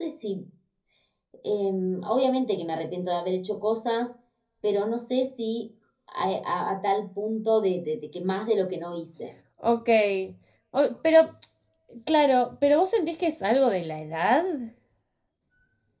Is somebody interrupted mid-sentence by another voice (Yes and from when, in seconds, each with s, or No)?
No